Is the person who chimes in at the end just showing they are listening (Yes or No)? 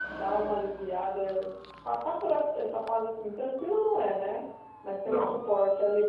Yes